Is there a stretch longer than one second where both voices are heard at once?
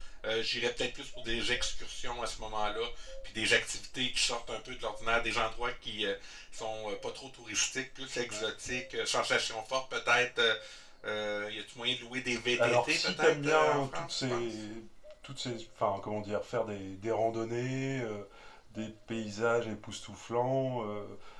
Yes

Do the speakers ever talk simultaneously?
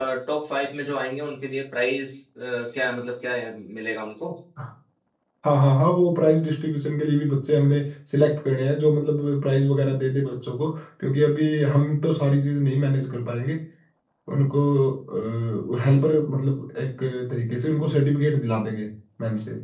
No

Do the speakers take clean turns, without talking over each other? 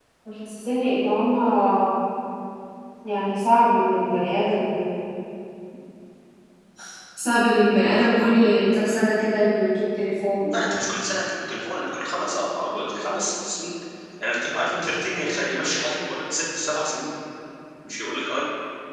Yes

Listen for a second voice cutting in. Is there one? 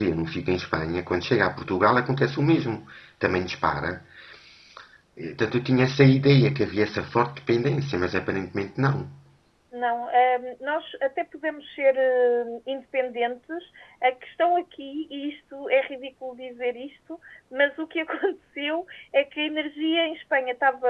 No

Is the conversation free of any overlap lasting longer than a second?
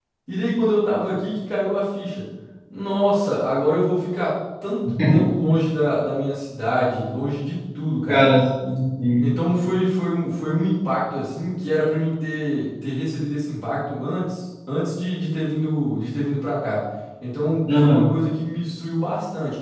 Yes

